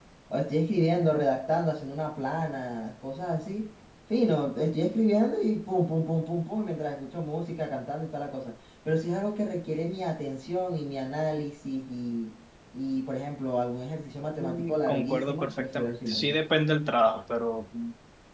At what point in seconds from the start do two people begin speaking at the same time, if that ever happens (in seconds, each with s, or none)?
14.4 s